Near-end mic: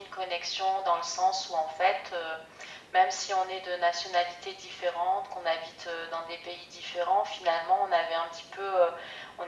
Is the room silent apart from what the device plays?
Yes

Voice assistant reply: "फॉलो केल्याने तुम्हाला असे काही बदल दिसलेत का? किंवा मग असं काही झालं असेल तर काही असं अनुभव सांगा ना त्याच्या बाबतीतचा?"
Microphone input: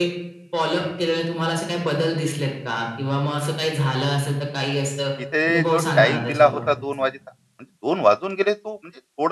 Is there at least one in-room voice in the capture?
Yes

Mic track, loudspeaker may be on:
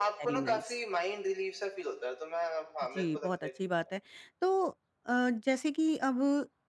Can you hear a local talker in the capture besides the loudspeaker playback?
Yes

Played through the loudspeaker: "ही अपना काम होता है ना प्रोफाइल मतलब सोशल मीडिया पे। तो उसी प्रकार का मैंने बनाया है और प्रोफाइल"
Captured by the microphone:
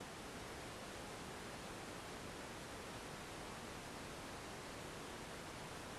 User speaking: No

